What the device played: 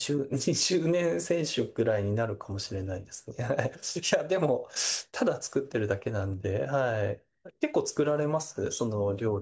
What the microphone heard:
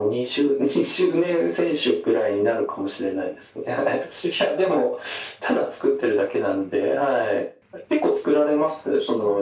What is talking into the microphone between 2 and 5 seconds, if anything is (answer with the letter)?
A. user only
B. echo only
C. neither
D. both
B